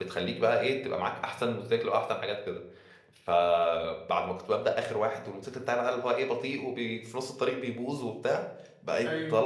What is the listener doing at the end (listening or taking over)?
listening